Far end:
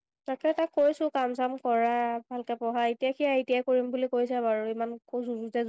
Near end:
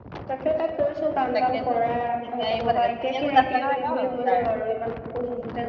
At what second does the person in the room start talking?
1.3 s

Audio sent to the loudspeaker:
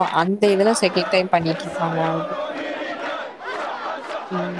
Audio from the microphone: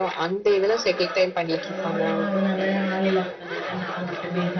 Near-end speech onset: 1.6 s

